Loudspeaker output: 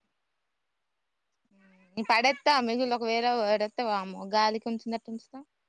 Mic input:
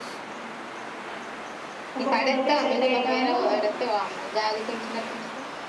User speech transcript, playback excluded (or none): ఒక పూటకే సెట్ అయి తాండూ